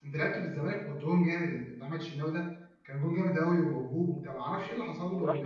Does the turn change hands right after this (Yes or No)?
Yes